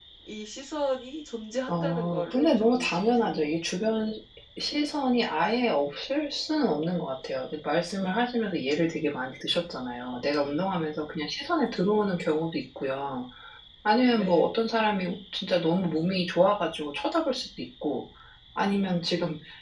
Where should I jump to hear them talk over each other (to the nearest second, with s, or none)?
2 s